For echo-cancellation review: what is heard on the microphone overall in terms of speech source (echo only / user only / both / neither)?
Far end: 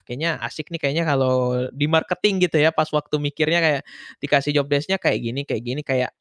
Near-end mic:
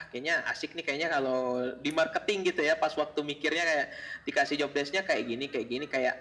echo only